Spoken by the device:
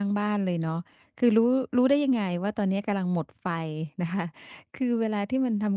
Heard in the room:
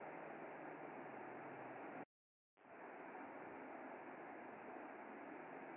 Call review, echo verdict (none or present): none